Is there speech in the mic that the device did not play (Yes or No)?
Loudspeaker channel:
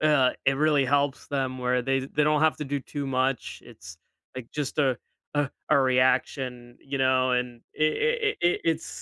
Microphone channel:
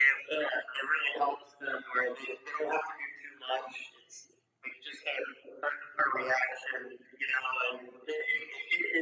No